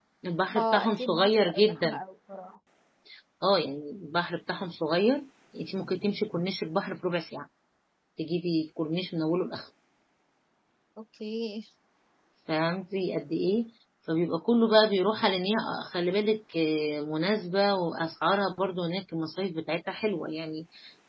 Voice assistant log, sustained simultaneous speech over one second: present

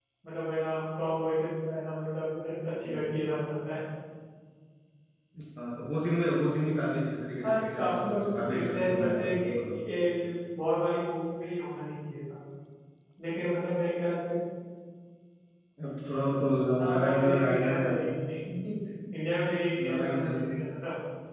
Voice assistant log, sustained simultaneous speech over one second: present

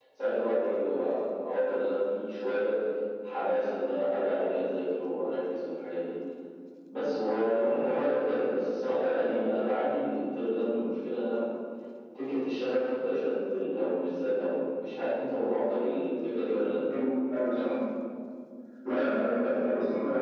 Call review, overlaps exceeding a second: none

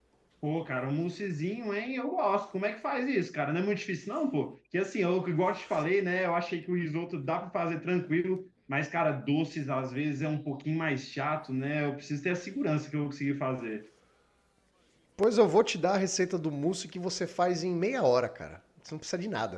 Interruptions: none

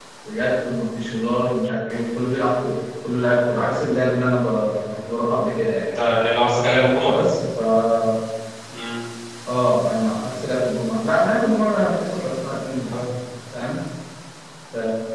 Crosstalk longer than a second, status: none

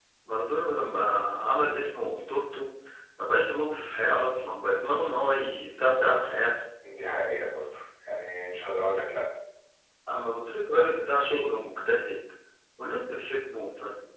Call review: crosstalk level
none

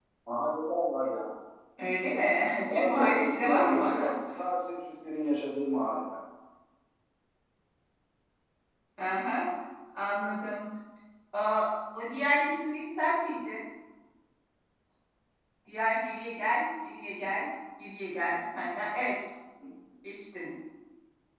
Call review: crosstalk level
present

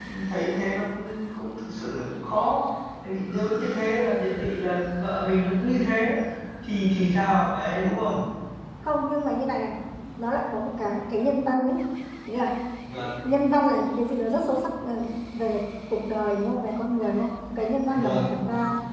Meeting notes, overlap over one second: none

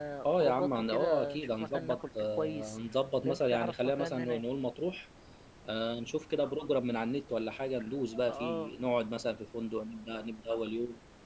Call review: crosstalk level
present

